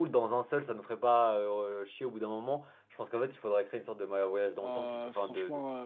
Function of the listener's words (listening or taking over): taking over